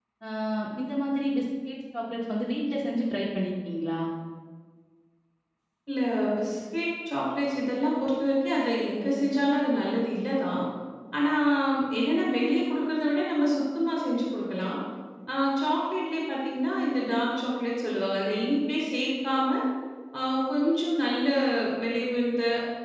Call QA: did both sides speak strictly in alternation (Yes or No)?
Yes